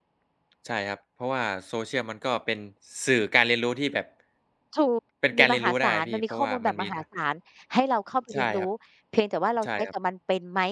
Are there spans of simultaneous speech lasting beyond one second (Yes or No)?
Yes